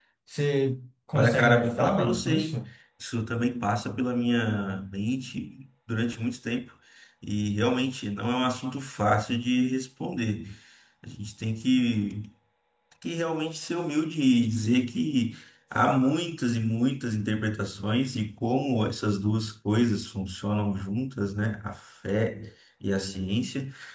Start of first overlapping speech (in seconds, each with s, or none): 1.1 s